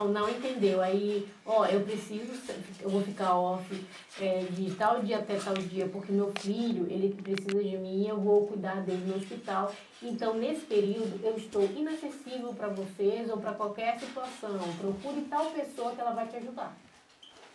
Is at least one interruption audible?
No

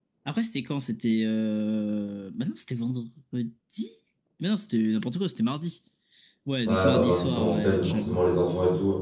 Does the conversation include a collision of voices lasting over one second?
Yes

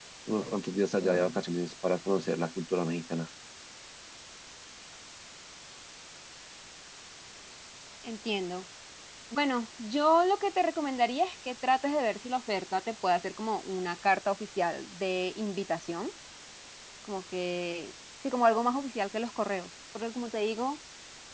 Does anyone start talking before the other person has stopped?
No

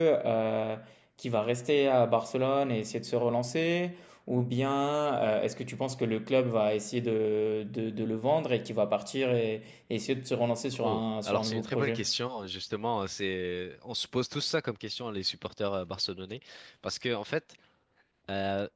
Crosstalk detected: Yes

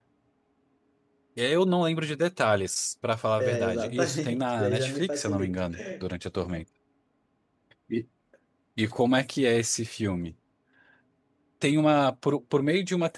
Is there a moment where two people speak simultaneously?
Yes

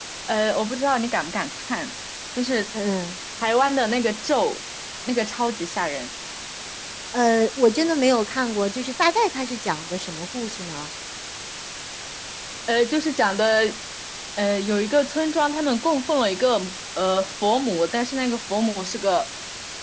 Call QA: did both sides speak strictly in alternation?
Yes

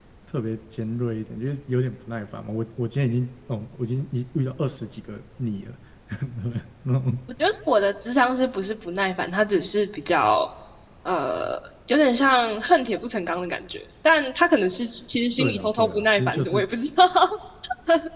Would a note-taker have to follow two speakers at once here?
Yes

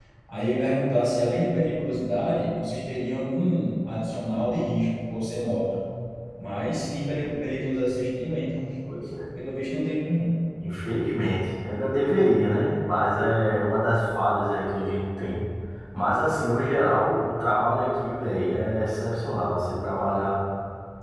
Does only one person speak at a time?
Yes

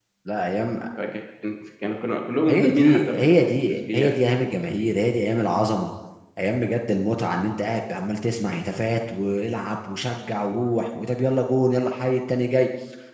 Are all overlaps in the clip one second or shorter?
No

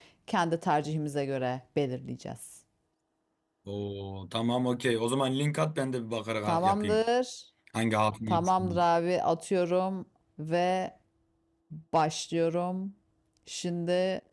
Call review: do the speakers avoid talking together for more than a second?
Yes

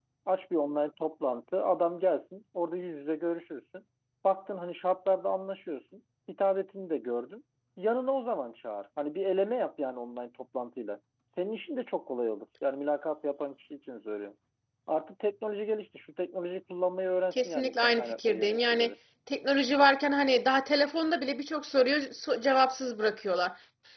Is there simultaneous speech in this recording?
Yes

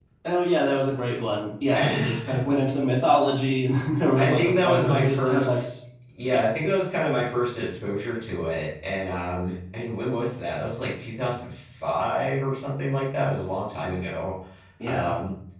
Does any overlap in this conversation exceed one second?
Yes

